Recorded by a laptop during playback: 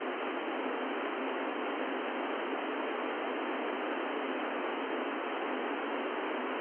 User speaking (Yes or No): No